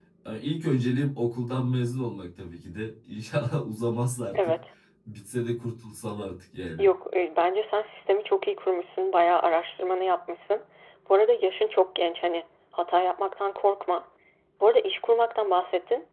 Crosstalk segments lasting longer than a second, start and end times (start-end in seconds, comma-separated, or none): none